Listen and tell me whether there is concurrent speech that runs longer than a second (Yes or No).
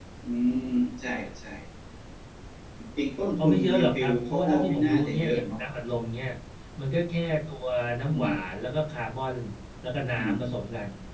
Yes